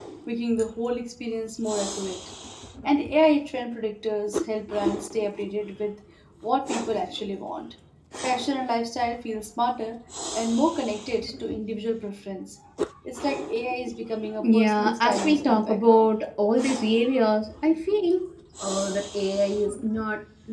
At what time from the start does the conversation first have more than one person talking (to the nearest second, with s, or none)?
14 s